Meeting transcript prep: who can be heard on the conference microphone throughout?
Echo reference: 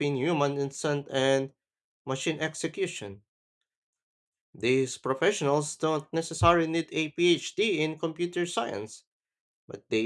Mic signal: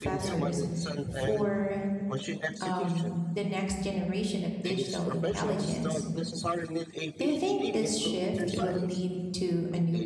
both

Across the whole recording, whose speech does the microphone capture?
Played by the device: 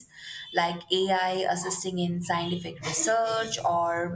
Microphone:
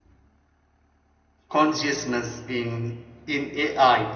user only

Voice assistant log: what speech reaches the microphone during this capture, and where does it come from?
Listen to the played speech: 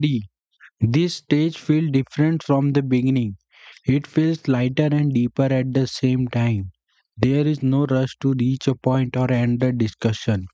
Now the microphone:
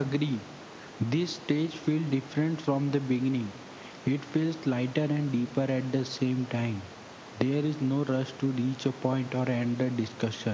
echo only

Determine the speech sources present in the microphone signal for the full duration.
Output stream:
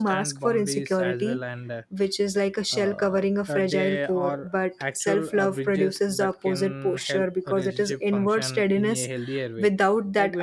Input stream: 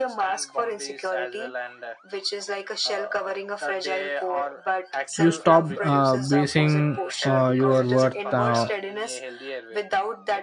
both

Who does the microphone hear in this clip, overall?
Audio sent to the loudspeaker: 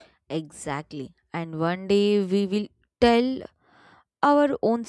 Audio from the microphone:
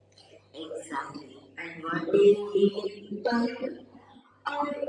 echo only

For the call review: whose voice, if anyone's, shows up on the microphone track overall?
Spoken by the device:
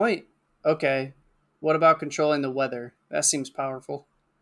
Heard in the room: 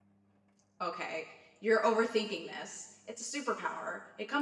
user only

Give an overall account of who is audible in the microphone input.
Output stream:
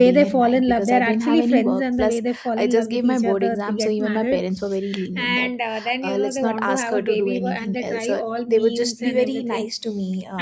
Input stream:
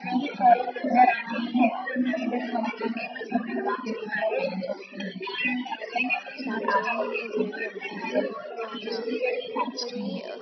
both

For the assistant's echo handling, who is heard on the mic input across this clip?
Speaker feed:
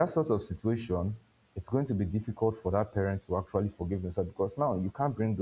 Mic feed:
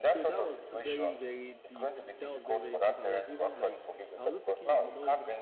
both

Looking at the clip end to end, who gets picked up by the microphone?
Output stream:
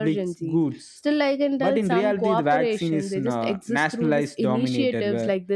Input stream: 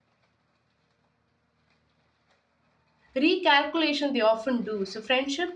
user only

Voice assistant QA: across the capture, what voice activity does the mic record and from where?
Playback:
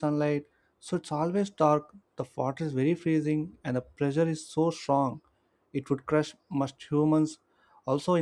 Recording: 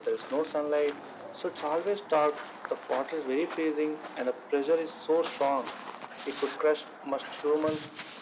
echo only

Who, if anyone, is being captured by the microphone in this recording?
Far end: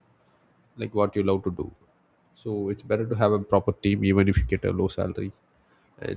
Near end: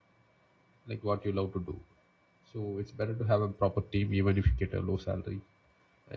echo only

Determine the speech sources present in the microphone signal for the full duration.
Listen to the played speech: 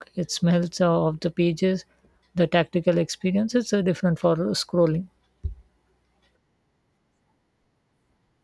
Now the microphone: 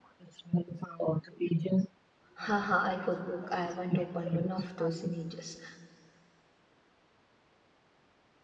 both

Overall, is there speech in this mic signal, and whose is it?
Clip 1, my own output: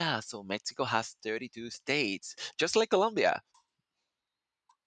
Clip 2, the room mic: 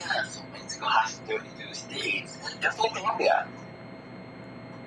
echo only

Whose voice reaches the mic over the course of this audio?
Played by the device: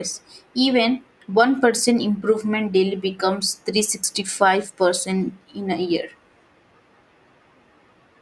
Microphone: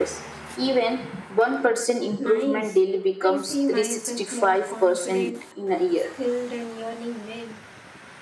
both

